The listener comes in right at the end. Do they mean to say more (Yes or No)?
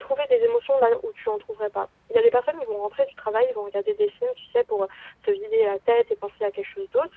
No